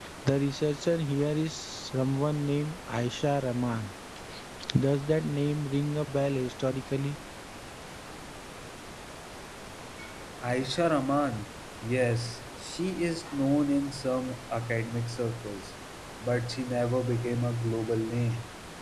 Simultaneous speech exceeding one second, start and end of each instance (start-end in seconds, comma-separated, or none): none